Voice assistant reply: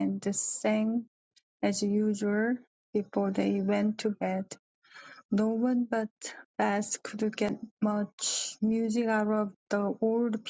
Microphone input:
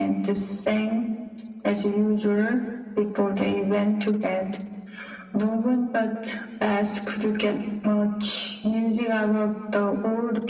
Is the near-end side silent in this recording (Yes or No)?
Yes